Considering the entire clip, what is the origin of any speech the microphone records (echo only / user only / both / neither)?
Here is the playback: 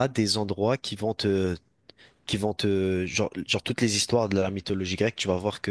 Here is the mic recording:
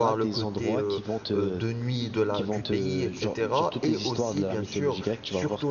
both